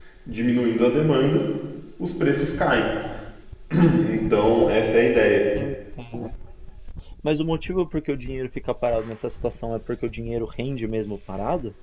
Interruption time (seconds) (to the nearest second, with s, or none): none